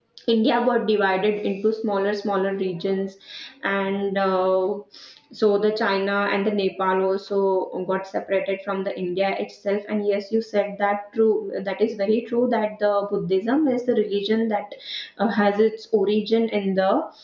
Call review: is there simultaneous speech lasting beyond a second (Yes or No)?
No